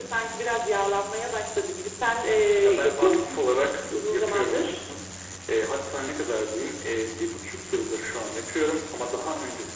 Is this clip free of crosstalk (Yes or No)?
No